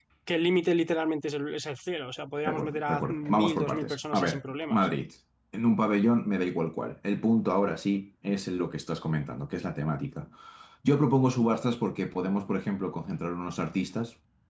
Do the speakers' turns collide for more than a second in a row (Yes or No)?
Yes